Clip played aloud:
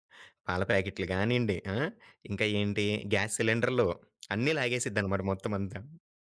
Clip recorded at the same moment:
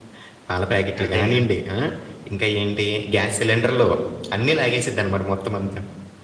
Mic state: both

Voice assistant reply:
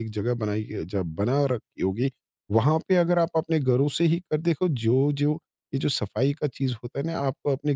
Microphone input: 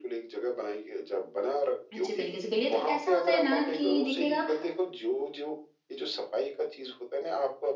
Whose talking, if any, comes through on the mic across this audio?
both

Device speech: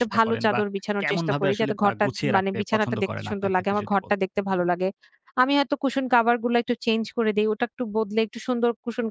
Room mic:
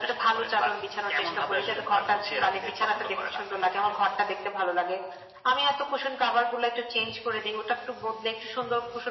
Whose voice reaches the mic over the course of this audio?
echo only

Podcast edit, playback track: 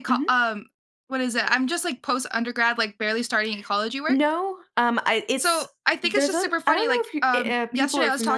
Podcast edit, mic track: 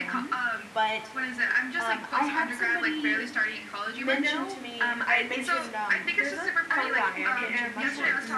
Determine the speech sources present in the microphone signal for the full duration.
both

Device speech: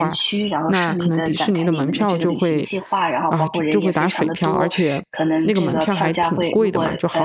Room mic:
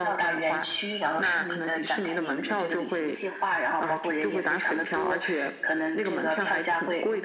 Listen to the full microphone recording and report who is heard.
echo only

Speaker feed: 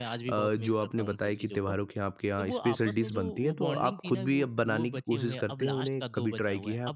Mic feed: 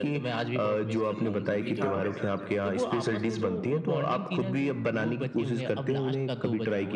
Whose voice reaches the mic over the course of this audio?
both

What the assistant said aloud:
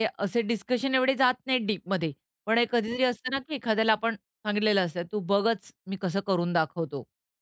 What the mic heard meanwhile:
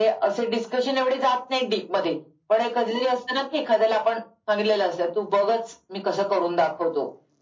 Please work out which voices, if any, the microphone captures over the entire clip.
echo only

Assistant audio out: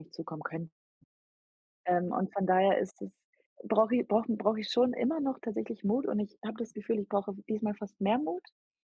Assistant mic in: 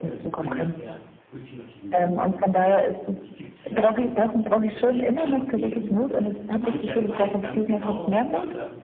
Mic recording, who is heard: both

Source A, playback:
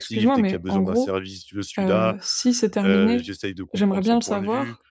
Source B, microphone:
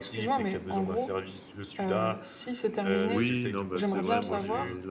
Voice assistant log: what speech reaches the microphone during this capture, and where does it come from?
both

